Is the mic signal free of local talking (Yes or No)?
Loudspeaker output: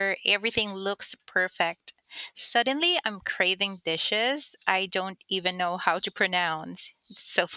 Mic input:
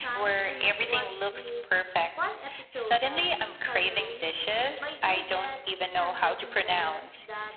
No